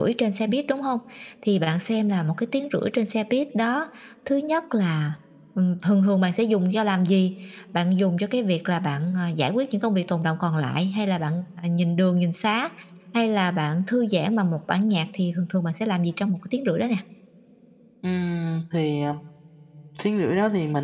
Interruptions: none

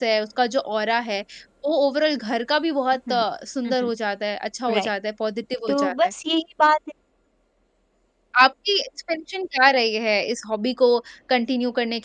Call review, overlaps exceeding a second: none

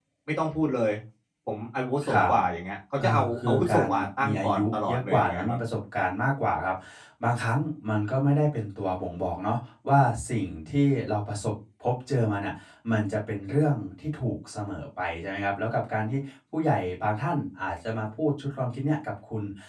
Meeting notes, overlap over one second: present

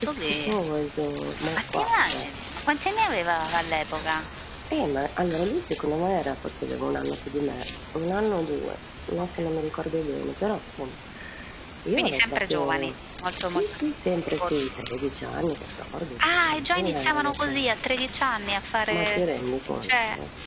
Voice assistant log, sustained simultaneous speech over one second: present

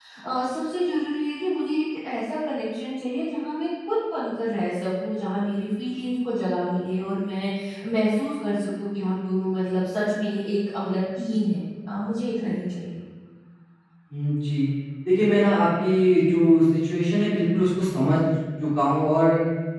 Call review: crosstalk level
none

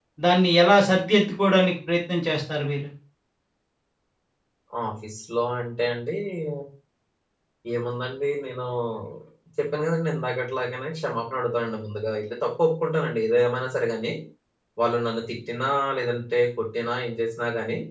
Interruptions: none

